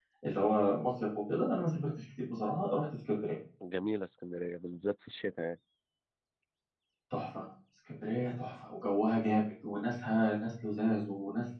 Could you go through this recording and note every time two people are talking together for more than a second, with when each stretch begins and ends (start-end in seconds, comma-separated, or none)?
none